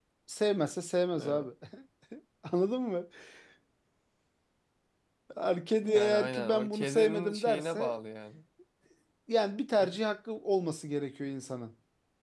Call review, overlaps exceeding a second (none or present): present